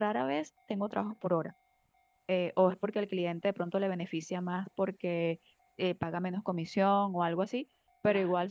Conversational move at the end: listening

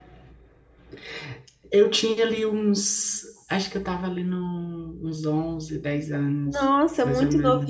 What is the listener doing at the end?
taking over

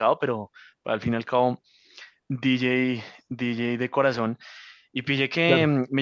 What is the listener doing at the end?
listening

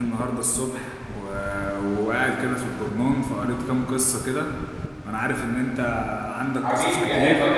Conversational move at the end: taking over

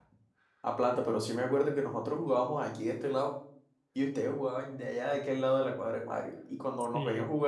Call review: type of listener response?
listening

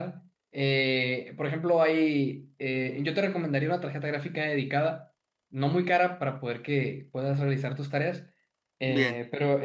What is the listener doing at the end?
listening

